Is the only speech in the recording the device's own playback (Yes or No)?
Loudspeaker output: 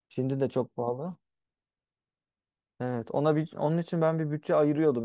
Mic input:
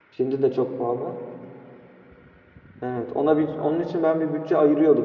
Yes